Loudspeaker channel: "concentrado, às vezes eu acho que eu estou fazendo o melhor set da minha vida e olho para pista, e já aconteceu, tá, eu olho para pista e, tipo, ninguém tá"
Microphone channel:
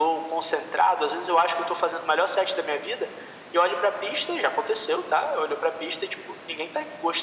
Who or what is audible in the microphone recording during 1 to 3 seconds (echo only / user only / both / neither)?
echo only